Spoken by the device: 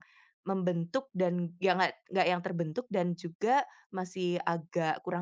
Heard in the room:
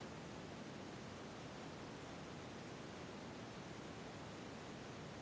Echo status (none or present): none